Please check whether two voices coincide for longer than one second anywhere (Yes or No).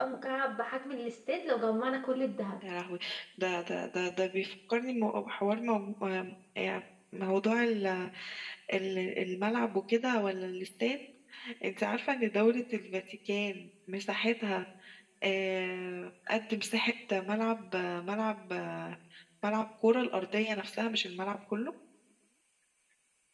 No